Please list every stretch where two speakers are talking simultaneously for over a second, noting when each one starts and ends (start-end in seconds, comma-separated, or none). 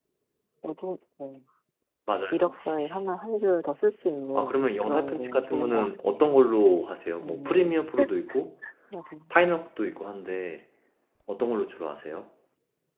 4.4-6.3